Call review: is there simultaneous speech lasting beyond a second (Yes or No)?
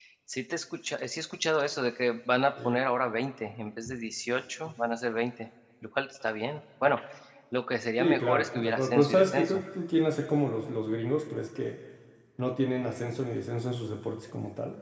Yes